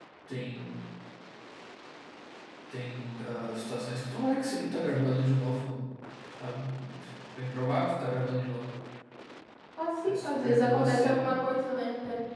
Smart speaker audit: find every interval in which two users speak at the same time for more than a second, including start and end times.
10.0-11.3

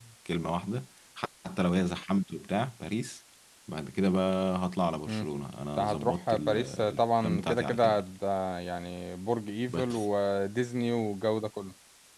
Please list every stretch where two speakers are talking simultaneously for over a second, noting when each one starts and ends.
5.8-8.0

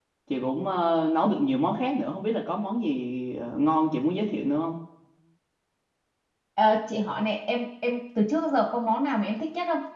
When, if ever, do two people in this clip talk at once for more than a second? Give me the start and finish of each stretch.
none

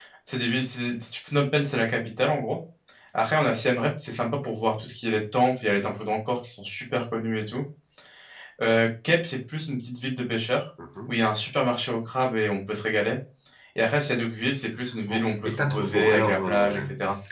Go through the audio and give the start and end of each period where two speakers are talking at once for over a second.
15.1-16.8

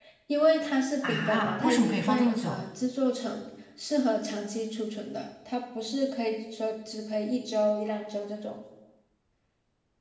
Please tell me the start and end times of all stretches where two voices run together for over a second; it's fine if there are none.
1.1-2.6

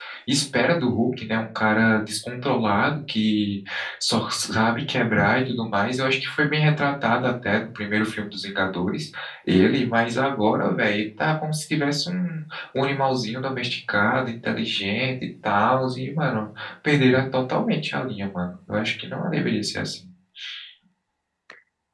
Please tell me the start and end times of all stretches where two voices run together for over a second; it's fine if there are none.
none

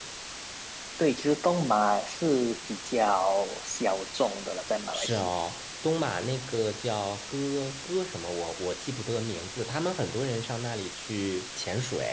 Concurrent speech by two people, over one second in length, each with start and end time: none

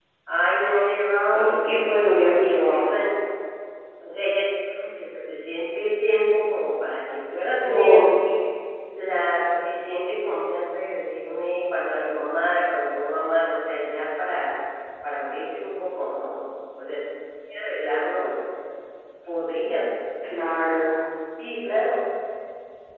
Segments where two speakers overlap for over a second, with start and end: 1.3-2.9

